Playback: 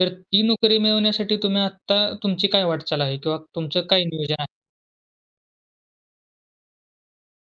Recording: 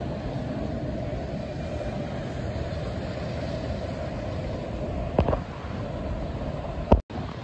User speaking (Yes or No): No